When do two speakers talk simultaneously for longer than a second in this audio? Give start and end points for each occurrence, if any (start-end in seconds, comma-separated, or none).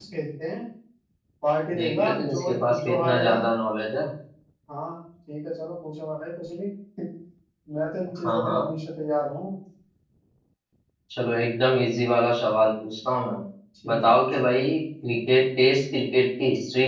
1.8-3.4